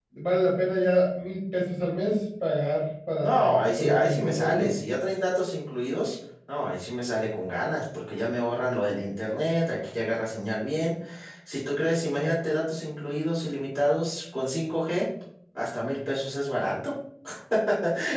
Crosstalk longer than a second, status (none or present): present